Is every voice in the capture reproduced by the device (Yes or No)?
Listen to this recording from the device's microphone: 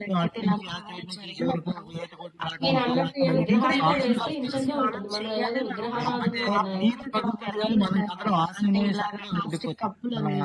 No